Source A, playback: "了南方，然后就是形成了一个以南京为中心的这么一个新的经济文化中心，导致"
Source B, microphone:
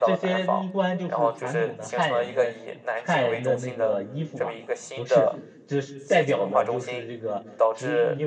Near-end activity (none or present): present